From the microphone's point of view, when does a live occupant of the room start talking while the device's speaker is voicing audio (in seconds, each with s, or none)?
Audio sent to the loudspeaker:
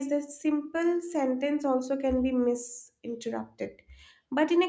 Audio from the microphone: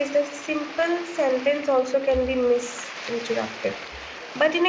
none